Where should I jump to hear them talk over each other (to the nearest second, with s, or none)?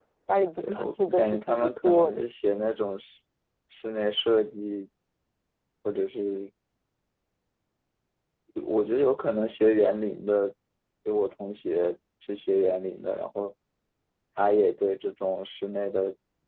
1 s